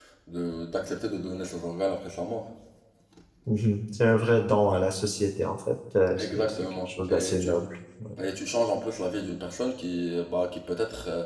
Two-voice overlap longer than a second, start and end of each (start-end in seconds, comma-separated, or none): 6.3-7.5